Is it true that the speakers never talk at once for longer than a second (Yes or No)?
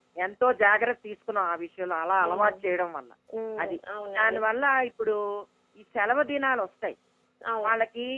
Yes